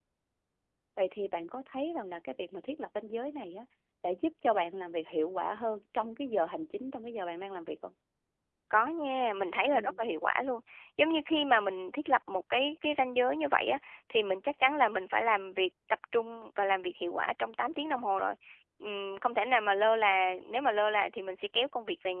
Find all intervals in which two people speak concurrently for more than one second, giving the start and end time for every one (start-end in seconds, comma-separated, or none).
none